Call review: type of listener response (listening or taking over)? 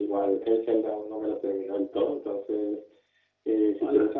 listening